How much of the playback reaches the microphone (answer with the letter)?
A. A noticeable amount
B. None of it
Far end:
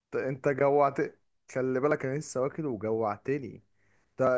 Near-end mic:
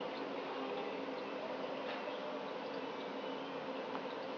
B